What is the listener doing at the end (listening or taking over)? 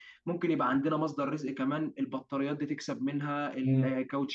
taking over